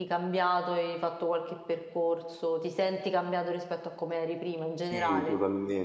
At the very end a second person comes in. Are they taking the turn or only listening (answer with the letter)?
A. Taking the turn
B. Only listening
A